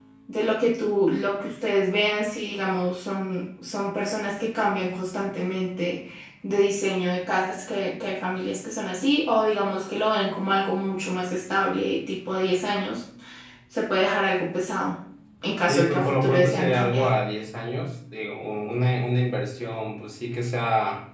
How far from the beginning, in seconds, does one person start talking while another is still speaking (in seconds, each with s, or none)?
15.7 s